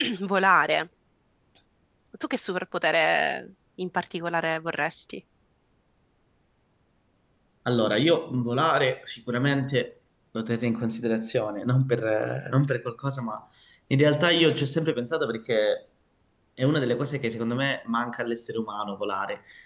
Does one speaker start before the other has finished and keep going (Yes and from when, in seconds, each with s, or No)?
No